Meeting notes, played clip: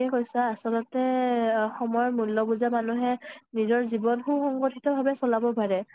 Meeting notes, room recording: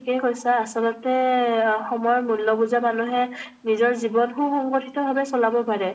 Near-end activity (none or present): none